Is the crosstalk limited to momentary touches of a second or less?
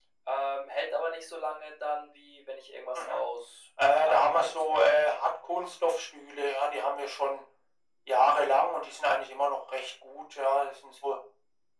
No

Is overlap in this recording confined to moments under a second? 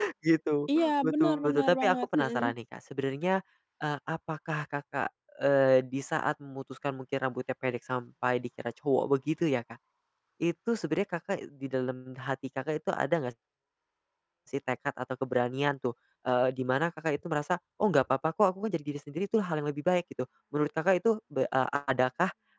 No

